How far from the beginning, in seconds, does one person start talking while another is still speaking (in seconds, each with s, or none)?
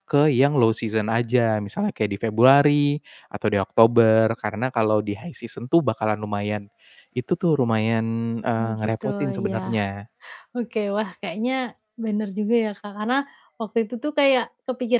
8.6 s